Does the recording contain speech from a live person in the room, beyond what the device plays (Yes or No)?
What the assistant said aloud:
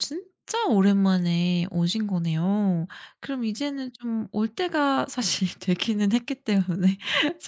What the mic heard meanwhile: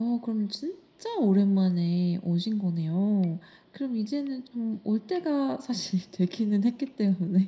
No